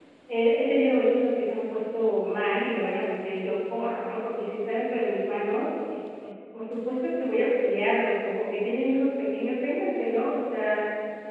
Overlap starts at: none

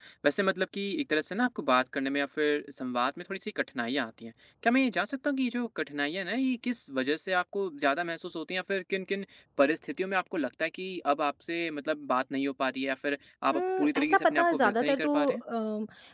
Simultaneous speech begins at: 13.5 s

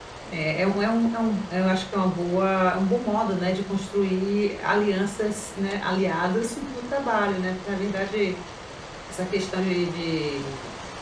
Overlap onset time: none

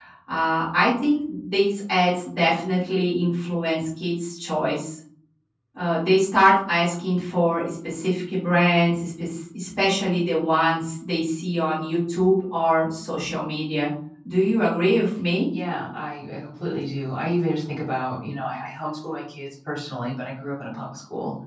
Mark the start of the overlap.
none

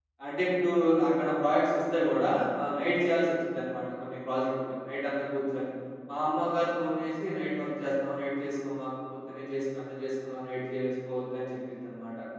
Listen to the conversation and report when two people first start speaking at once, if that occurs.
none

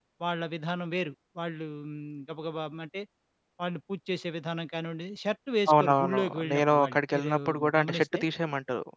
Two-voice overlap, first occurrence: 5.7 s

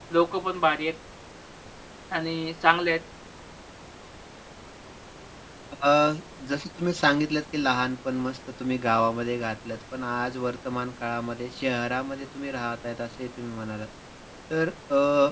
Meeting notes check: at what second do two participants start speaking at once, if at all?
none

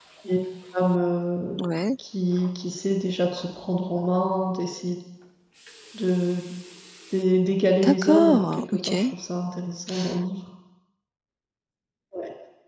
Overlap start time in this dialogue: 7.8 s

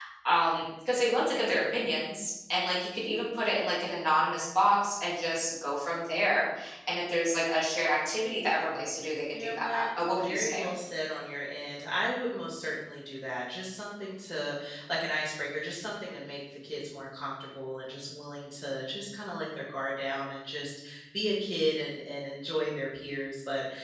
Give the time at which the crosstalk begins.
9.3 s

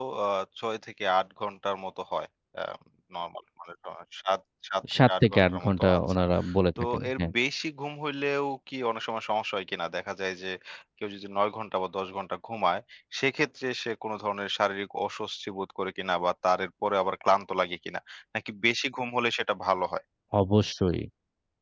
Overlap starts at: 5.0 s

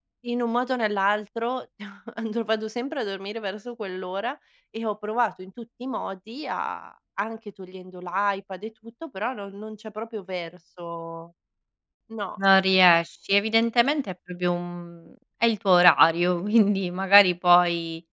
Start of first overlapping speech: none

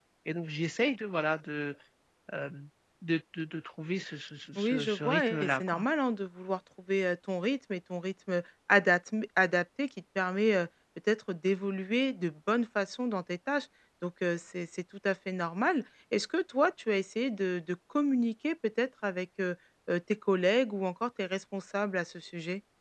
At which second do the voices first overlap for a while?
4.5 s

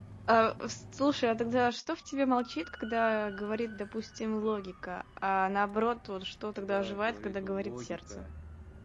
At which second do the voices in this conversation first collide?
6.6 s

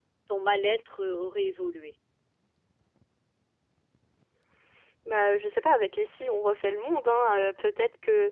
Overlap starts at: none

